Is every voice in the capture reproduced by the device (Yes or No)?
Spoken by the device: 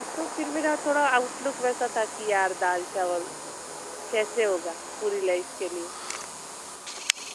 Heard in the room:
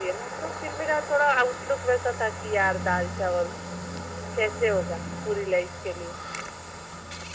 Yes